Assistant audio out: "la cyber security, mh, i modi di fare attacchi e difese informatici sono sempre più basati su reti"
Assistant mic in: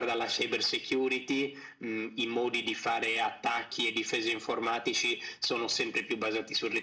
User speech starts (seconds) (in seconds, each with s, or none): none